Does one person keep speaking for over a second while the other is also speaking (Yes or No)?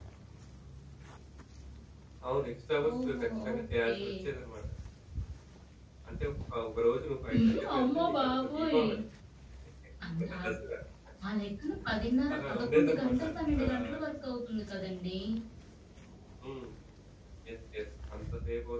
Yes